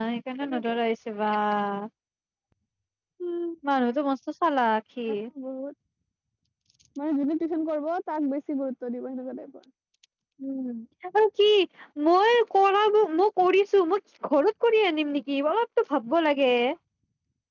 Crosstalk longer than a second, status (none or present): none